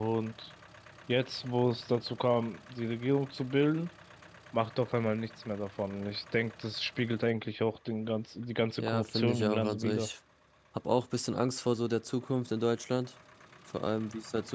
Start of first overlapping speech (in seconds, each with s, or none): 8.8 s